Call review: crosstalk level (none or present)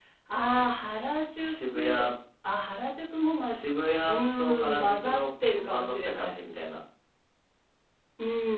present